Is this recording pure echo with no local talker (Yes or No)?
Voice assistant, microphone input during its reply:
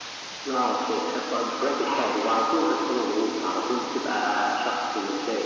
Yes